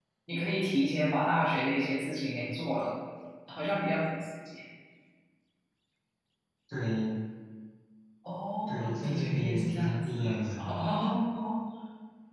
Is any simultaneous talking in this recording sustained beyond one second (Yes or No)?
Yes